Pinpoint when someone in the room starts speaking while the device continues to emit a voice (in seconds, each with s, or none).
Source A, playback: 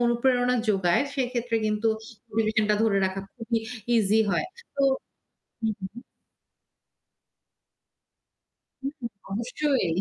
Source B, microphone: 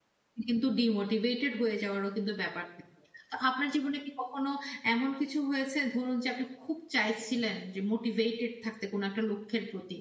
0.5 s